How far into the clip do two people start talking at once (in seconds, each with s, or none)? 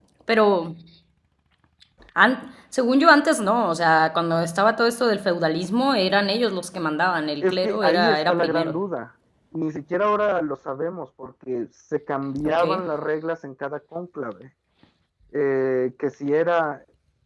7.4 s